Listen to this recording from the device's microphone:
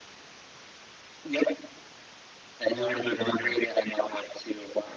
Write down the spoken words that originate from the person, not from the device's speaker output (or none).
Who are you living with now?